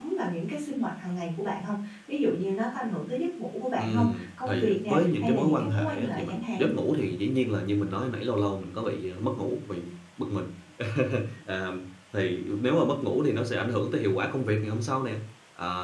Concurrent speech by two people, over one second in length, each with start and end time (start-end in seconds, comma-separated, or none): 3.8-6.7